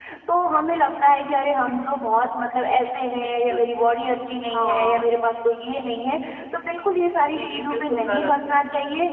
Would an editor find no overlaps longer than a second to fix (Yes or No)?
No